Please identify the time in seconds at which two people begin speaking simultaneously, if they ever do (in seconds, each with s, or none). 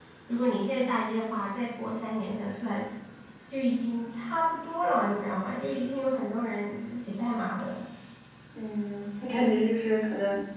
none